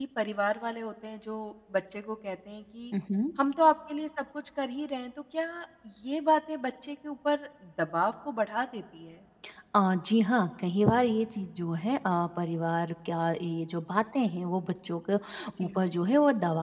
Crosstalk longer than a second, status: none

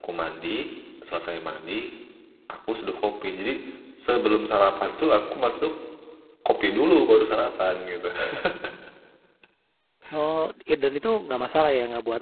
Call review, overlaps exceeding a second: none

